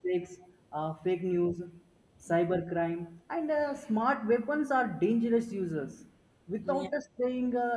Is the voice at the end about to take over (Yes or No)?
No